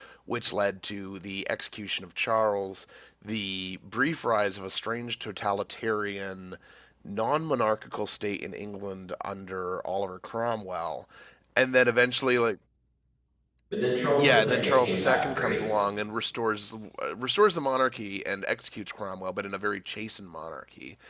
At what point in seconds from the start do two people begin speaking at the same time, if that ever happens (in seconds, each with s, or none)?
14.2 s